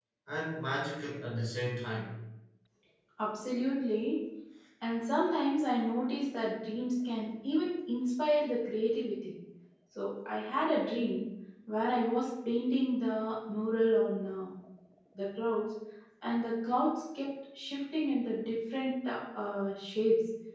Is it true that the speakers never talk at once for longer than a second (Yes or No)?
Yes